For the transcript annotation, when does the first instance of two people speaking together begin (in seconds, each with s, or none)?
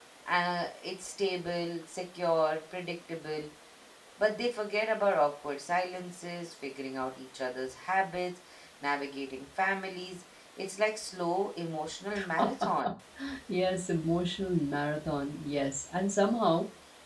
none